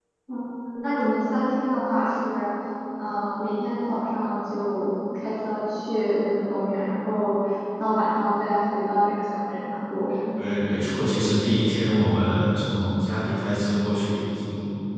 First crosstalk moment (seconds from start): none

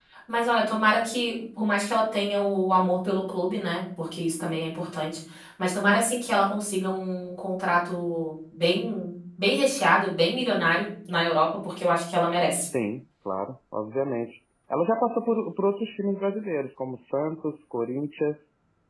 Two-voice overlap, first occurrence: none

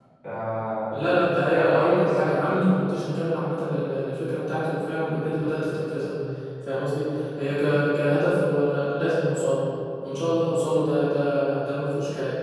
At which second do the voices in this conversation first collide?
0.9 s

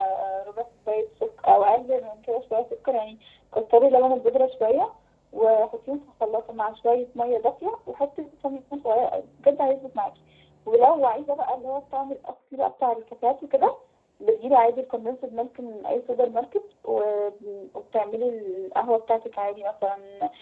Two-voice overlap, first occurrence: none

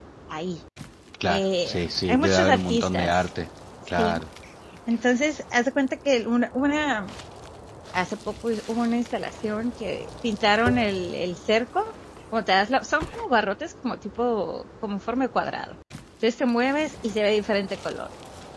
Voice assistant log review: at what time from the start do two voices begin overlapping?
1.3 s

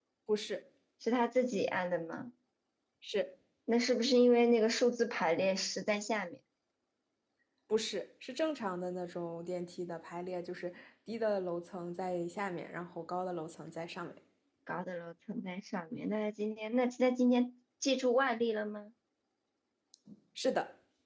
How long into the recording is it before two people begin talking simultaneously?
none

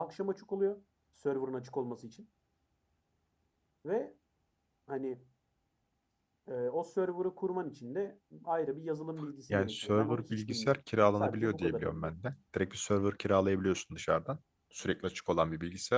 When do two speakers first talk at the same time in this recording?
9.5 s

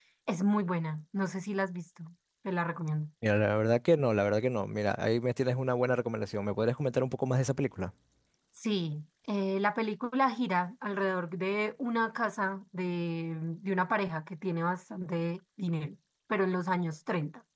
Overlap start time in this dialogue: none

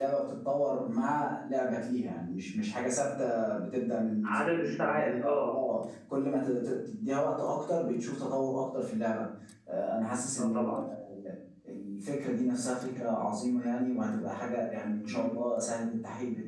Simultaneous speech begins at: 4.2 s

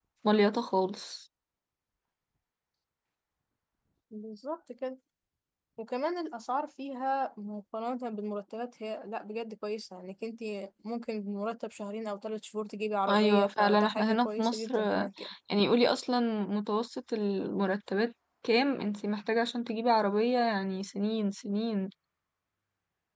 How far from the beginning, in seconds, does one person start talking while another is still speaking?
13.1 s

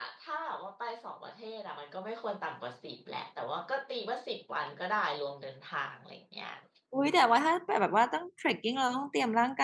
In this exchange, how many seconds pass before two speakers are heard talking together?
none

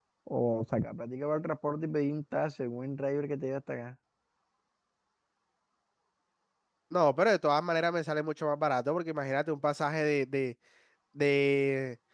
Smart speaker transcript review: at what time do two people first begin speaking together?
none

